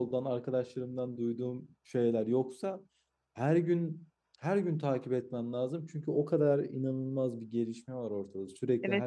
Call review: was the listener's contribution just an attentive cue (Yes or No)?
No